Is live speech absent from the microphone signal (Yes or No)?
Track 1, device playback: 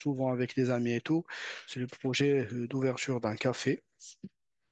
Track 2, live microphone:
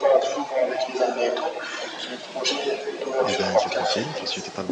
No